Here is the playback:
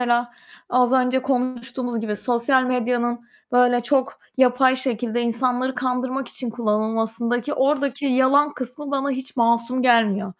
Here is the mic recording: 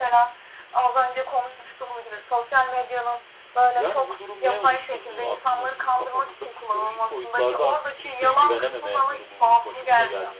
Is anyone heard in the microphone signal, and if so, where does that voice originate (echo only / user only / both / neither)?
both